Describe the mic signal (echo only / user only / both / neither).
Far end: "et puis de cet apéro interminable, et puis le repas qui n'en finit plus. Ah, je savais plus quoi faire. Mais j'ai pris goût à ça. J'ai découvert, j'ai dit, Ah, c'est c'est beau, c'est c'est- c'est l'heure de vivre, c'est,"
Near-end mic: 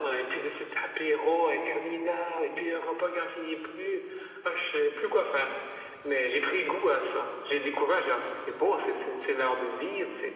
echo only